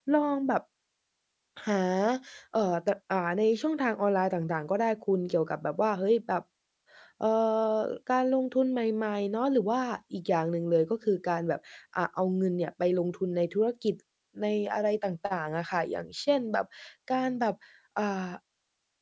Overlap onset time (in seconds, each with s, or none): none